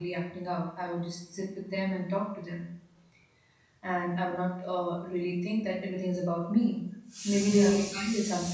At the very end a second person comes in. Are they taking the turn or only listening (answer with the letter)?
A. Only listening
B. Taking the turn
A